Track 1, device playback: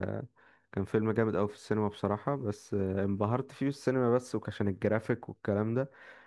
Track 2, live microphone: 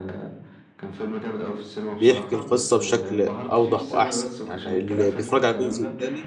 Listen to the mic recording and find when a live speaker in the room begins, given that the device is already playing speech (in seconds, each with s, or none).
2.0 s